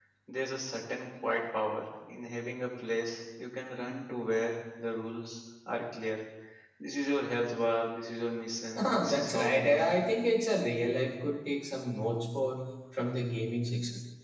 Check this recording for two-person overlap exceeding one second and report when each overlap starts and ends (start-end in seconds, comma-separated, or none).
8.8-10.1